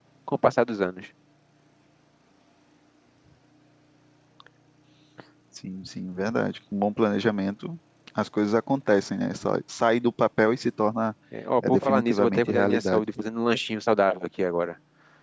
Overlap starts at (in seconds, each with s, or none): 11.7 s